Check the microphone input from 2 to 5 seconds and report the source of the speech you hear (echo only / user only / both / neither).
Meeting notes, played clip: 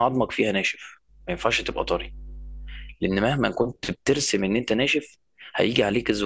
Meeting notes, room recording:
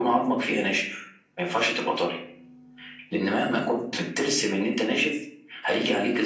echo only